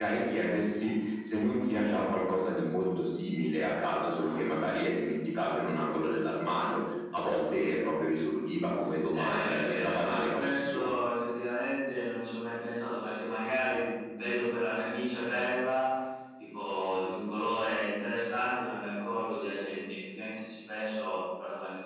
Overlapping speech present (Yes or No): Yes